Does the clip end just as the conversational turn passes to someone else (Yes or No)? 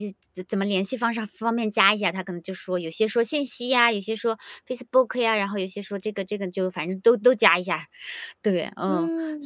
Yes